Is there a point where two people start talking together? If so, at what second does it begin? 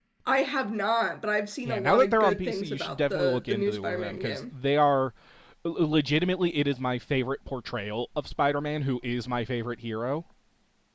1.6 s

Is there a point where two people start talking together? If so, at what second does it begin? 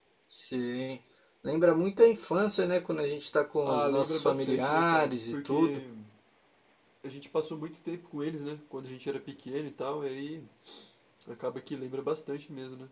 3.6 s

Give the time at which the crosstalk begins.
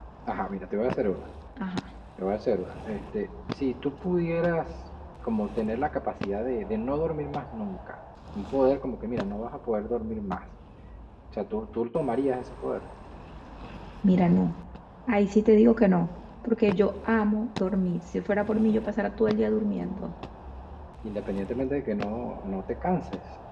none

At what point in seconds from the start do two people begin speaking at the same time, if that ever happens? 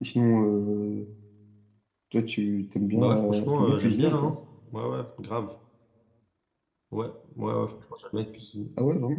2.9 s

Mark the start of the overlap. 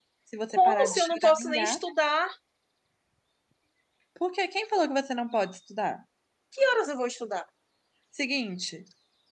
0.5 s

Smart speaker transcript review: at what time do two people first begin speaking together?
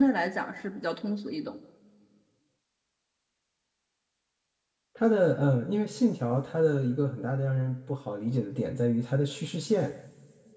none

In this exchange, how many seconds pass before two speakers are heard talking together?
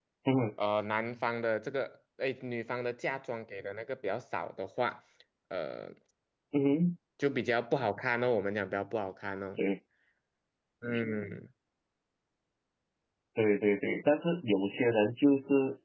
none

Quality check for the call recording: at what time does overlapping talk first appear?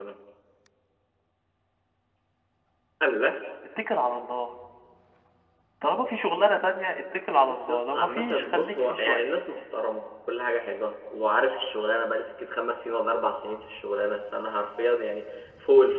7.4 s

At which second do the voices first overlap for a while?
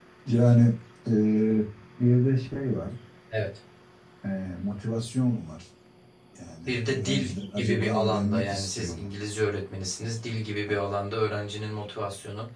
6.7 s

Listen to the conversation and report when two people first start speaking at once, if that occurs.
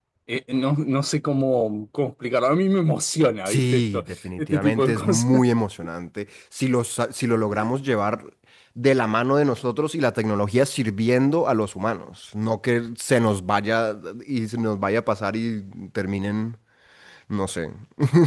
3.5 s

